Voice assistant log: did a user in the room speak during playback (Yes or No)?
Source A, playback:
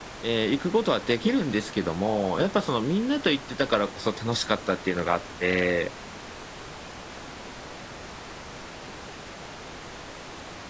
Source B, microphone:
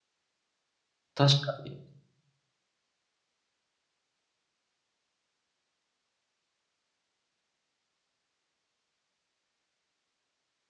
Yes